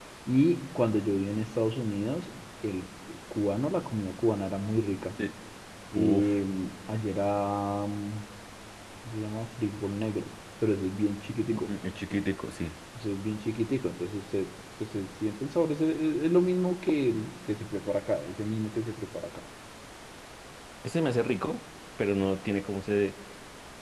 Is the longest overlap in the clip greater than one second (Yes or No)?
No